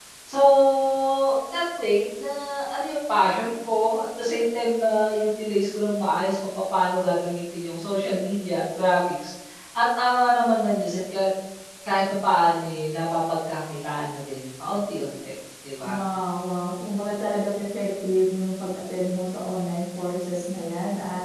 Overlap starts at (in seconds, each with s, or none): none